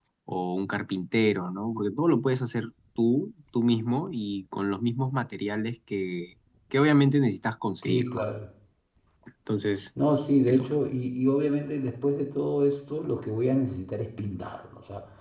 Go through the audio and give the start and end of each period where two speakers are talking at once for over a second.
none

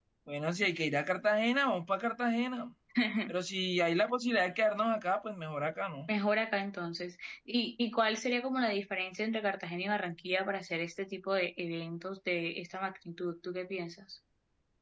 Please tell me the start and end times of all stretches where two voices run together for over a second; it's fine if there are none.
none

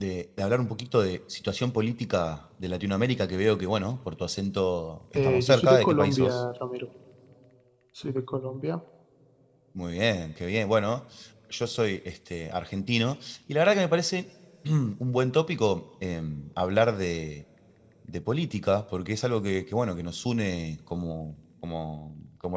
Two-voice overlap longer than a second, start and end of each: 5.2-6.4

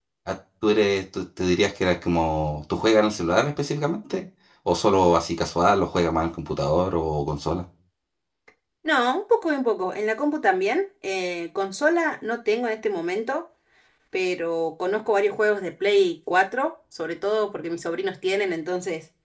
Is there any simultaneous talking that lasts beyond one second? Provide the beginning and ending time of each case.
none

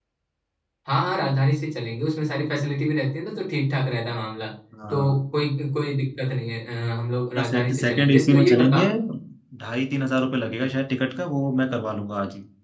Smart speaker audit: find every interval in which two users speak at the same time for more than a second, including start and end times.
7.4-8.9

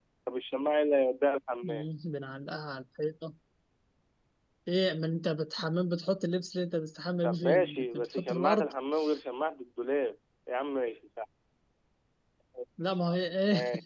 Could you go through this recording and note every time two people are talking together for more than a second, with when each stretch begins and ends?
7.2-8.7

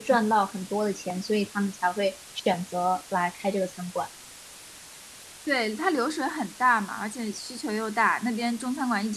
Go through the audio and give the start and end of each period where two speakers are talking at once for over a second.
none

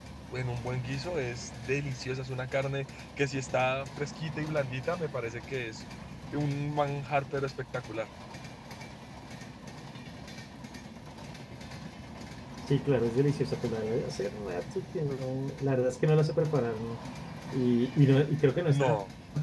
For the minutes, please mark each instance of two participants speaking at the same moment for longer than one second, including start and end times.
none

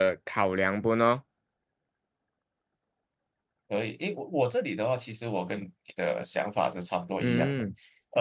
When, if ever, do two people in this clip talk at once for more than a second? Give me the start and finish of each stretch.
none

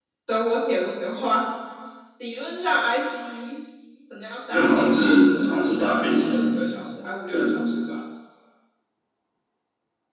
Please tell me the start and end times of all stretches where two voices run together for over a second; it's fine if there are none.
none

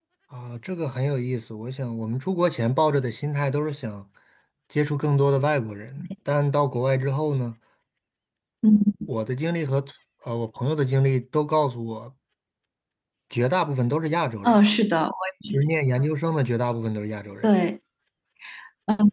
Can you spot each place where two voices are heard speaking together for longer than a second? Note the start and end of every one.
none

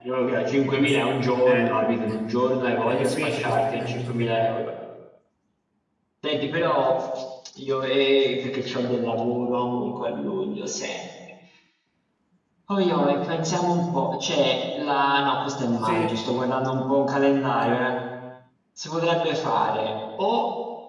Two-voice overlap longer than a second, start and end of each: 2.9-4.4

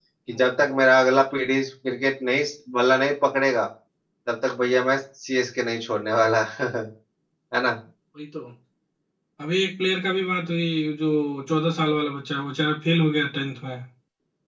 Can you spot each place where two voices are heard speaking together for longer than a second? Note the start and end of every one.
none

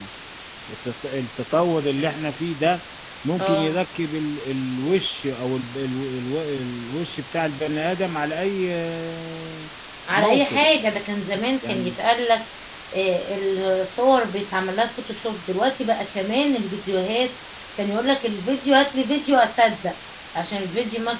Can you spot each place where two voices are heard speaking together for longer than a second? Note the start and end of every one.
none

